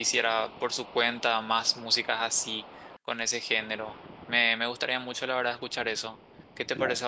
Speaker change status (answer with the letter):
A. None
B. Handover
B